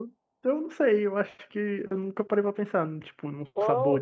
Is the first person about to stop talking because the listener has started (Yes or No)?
Yes